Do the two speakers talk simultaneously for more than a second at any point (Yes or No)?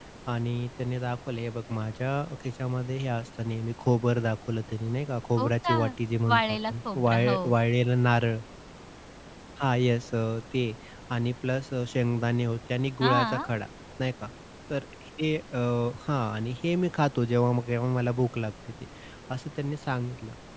Yes